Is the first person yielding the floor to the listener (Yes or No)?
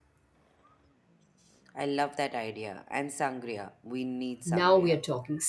Yes